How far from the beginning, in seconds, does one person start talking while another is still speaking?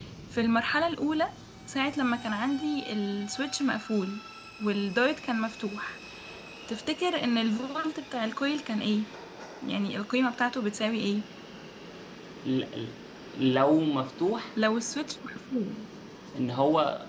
none

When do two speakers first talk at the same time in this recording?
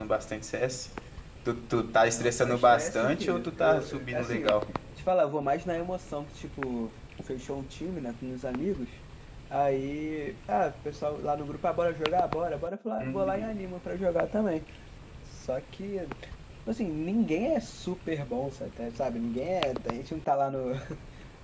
2.1 s

